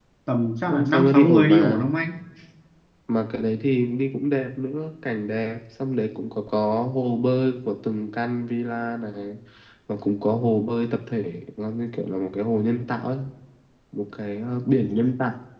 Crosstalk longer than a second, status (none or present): present